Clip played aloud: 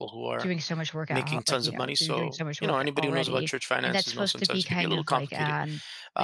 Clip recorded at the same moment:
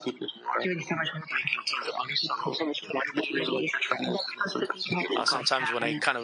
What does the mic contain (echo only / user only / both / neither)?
both